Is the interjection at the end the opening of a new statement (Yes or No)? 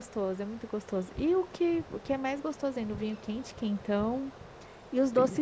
No